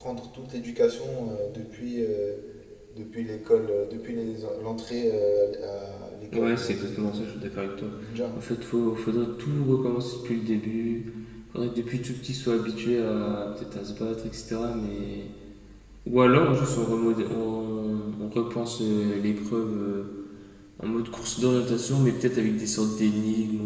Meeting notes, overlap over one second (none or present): present